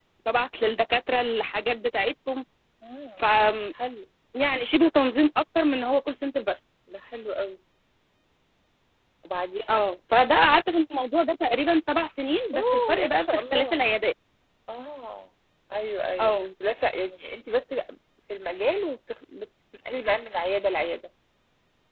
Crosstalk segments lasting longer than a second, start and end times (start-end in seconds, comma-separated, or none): 12.5-13.8